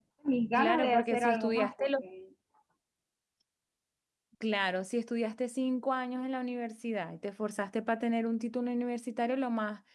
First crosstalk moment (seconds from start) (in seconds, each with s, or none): 0.6 s